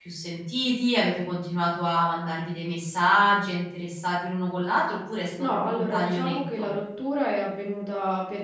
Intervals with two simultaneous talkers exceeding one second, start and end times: 5.4-6.7

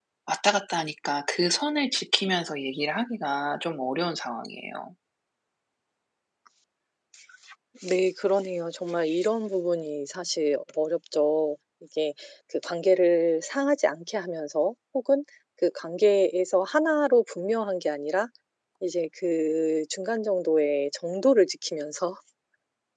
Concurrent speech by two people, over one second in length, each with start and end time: none

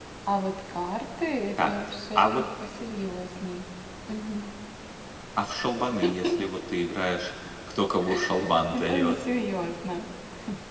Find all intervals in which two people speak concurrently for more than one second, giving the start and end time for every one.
none

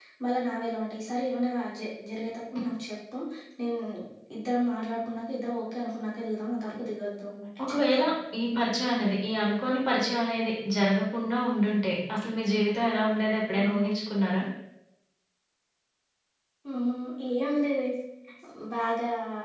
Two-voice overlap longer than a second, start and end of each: none

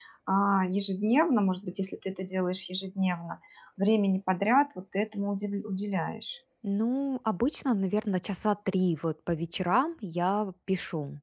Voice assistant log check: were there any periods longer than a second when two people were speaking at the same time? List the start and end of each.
none

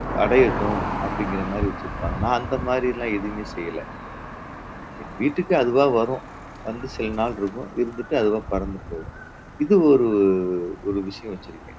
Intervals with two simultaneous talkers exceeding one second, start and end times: none

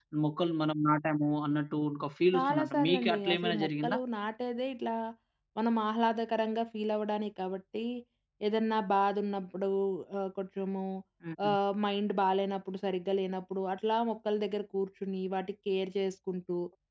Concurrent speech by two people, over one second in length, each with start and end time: 2.3-4.0

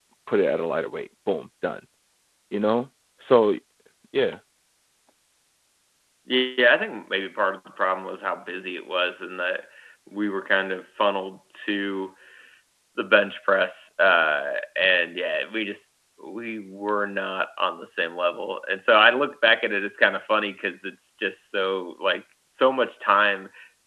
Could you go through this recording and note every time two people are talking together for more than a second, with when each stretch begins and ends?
none

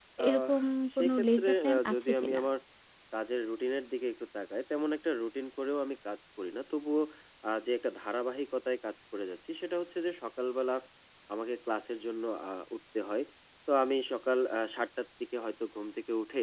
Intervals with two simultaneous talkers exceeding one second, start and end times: 1.0-2.4

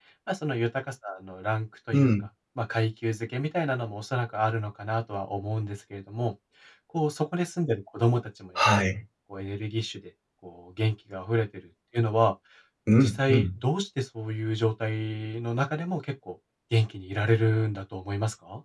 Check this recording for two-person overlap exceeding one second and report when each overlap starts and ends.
none

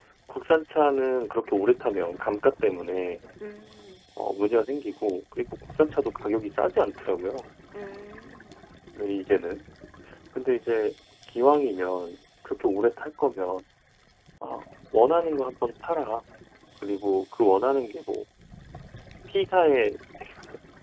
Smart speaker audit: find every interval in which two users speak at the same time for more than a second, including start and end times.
none

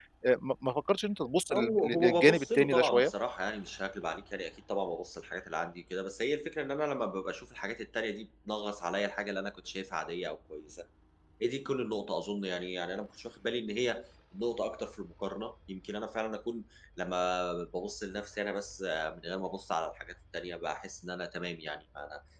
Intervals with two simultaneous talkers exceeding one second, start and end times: 1.5-3.1

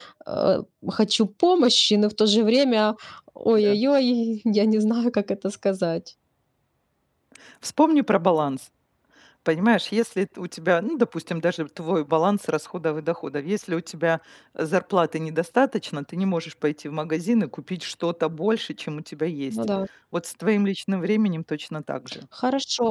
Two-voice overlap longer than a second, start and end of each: none

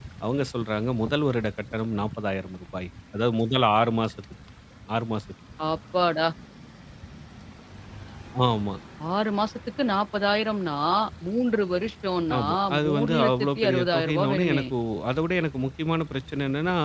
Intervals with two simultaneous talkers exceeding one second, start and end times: 12.4-14.6

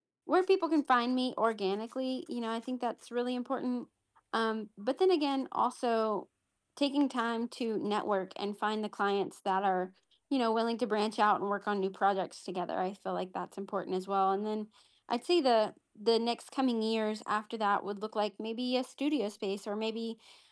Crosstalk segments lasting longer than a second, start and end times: none

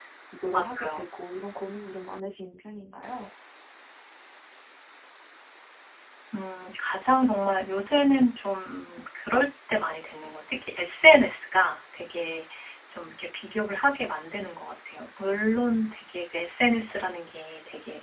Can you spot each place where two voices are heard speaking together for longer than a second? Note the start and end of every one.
none

